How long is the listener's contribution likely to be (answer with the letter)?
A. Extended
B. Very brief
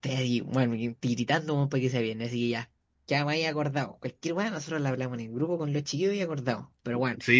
A